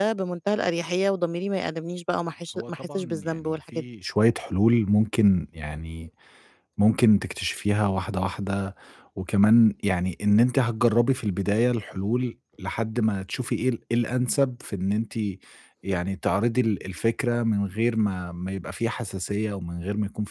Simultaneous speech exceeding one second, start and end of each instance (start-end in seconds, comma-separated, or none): 2.5-3.8